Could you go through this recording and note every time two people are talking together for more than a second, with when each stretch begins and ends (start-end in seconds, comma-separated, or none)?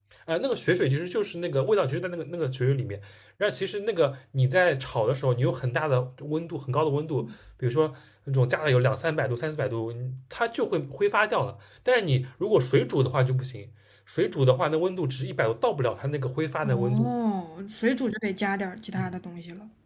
none